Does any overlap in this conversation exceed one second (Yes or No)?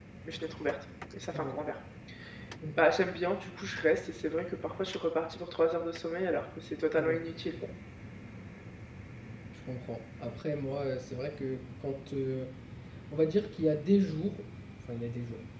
No